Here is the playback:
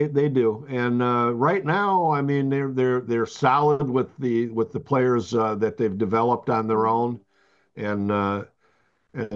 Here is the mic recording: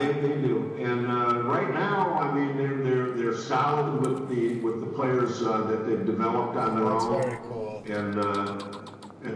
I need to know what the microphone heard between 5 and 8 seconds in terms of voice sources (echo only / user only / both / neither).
both